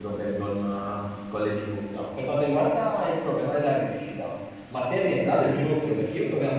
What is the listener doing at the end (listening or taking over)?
listening